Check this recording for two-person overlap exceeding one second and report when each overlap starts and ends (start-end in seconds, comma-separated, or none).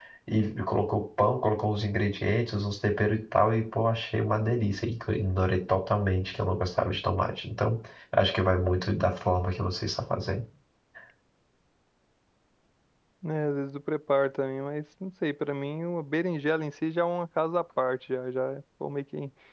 none